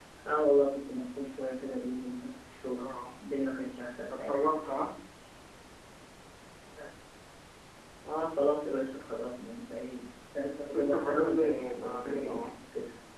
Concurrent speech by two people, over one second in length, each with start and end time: 10.8-12.4

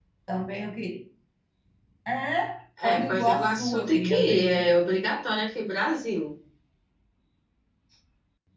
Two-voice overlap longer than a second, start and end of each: 2.8-4.7

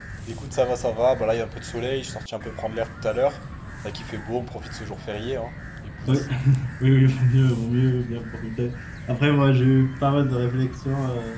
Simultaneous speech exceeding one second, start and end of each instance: none

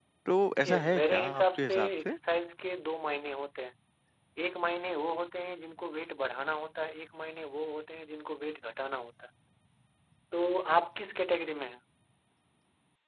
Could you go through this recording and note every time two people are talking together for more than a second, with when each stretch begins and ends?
0.6-2.2

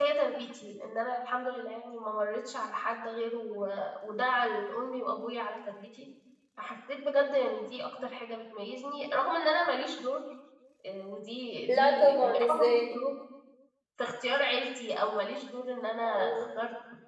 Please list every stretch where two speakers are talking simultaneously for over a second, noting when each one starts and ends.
11.7-13.0

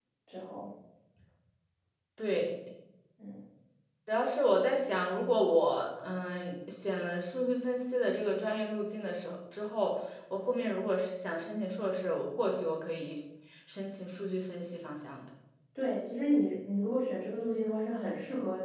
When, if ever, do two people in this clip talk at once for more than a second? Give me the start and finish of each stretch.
none

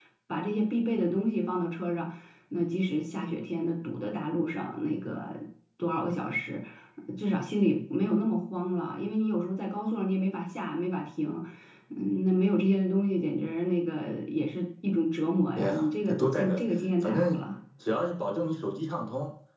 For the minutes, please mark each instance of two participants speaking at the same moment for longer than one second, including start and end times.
15.6-17.4

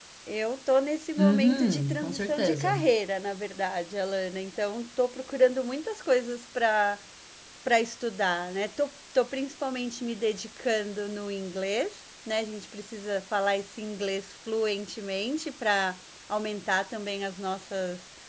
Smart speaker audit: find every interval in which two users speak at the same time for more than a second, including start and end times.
1.2-2.9

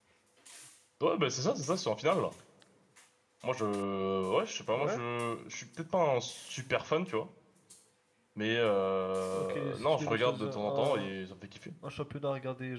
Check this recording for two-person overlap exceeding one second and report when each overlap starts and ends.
9.3-11.1

